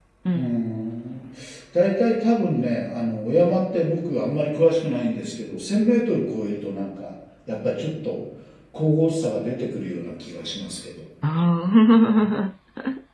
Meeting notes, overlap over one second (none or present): none